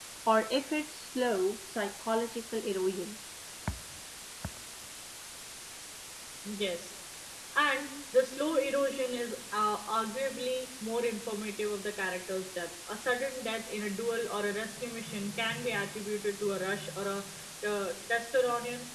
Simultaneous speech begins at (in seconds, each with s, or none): none